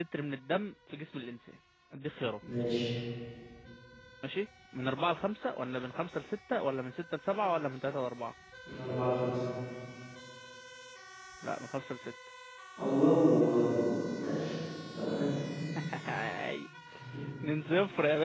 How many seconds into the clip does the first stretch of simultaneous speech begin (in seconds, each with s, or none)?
none